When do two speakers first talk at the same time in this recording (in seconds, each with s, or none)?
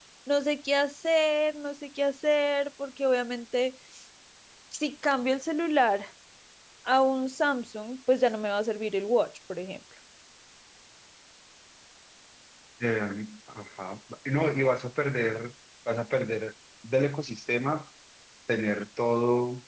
none